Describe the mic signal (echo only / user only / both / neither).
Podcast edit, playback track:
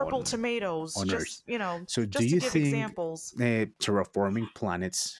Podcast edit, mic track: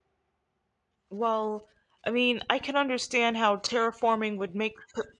user only